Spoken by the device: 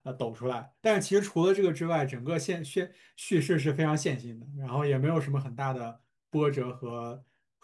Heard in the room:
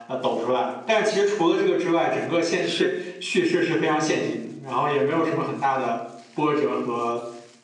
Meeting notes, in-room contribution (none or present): present